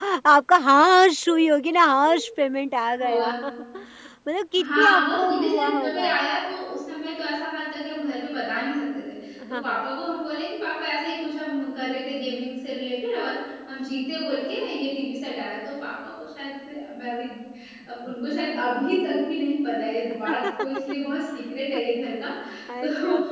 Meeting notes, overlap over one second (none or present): present